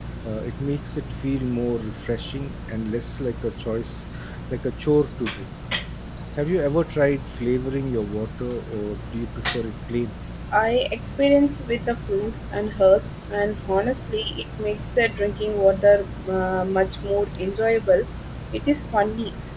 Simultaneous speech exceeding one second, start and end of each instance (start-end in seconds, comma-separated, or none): none